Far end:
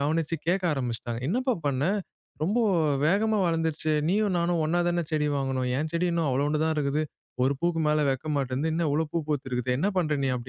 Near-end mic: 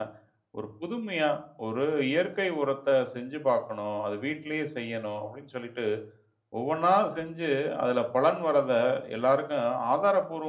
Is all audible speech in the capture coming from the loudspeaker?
No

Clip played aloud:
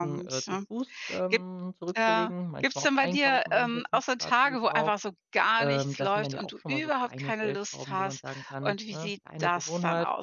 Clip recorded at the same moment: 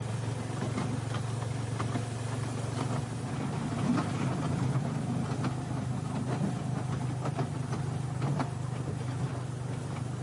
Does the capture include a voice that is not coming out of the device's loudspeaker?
No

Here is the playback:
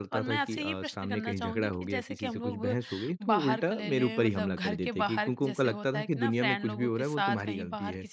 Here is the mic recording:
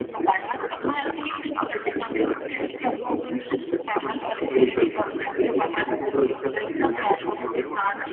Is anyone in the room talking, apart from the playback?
No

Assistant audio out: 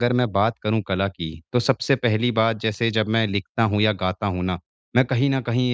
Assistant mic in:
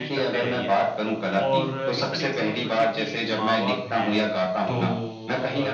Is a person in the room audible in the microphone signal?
Yes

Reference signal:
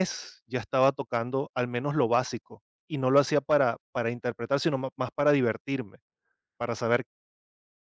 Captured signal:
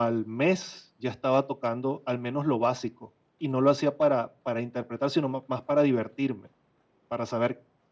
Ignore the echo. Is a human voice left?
No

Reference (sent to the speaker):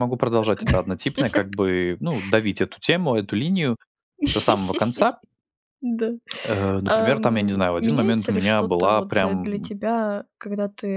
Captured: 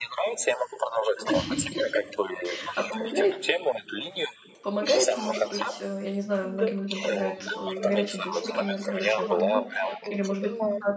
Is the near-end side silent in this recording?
No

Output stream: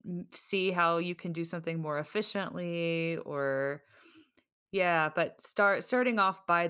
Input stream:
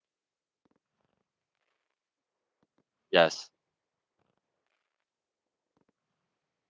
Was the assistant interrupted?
Yes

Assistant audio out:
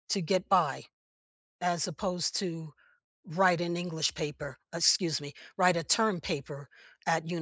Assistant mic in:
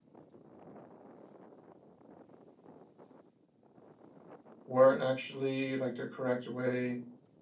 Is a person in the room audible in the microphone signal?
Yes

